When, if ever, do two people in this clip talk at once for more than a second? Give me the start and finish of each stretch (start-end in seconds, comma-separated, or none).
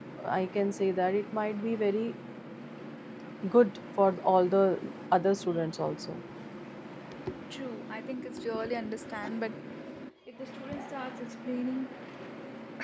none